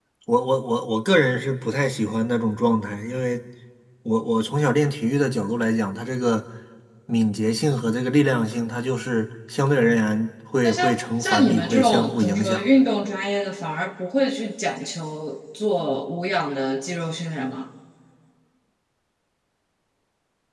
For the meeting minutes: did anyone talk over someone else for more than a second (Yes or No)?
Yes